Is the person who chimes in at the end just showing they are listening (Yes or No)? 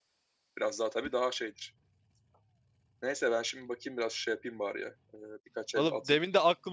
No